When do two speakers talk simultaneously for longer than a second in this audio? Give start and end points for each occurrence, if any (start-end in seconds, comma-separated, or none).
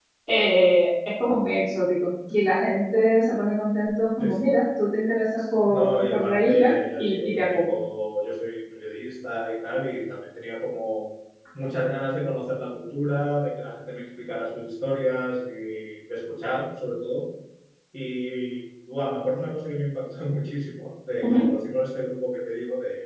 5.7-7.7